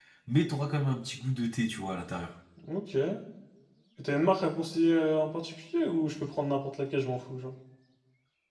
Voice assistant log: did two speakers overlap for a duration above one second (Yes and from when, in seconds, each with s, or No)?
No